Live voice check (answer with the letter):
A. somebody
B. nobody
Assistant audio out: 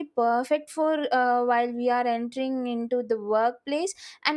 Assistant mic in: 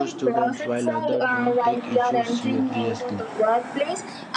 A